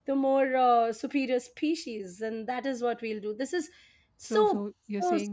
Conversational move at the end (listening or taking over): taking over